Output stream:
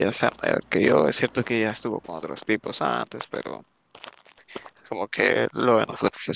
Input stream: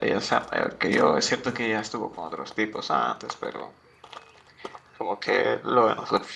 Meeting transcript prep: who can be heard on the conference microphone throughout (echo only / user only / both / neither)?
echo only